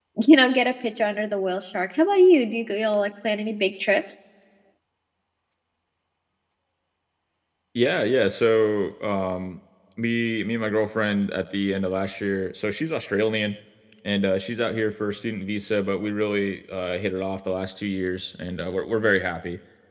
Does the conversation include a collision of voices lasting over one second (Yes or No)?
No